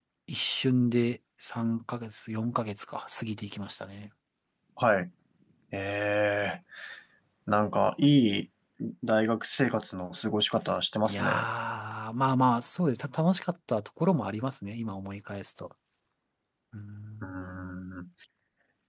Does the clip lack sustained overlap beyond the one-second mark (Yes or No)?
Yes